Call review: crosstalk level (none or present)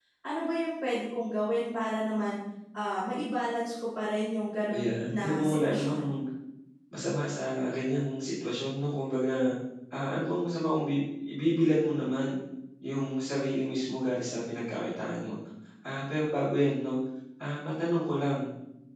present